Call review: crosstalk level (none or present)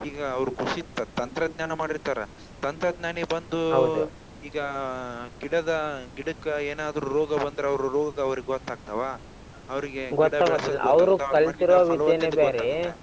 present